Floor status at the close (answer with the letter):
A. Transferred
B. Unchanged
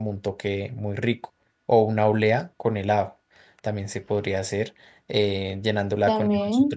B